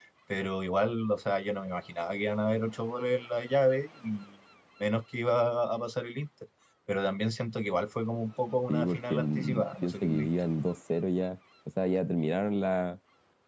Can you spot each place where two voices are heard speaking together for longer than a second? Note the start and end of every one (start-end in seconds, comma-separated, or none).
8.7-10.3